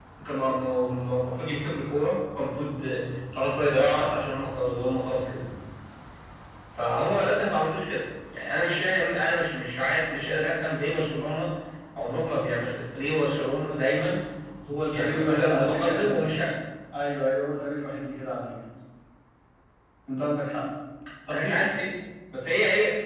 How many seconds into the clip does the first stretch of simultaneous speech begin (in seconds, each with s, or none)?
14.9 s